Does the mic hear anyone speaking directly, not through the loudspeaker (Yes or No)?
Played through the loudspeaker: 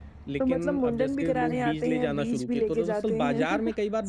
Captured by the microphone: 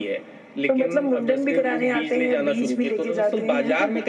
No